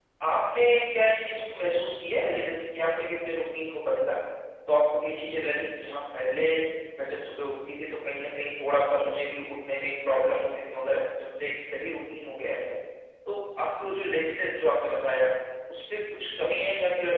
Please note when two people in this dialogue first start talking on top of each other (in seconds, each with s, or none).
none